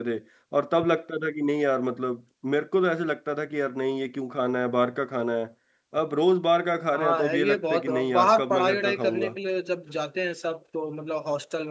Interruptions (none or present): present